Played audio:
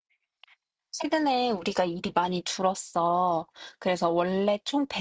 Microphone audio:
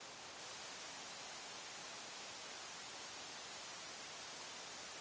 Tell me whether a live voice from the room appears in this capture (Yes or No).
No